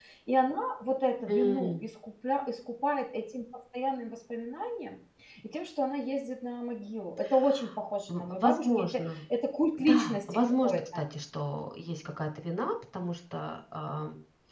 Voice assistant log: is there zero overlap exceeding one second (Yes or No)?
No